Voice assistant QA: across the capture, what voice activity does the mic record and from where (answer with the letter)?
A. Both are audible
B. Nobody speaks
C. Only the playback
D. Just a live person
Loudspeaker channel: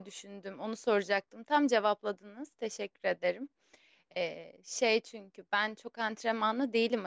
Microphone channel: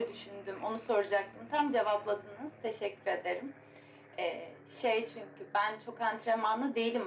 C